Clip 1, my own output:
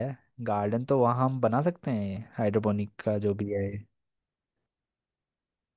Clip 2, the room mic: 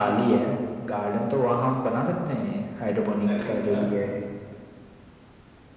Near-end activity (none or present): present